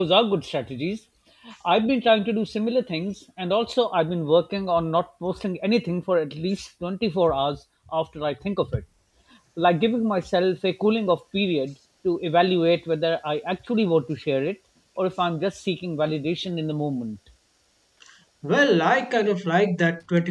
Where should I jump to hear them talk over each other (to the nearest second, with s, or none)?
none